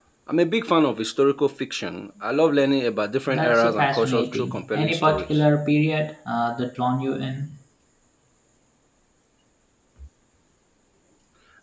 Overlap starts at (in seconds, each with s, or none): 3.3 s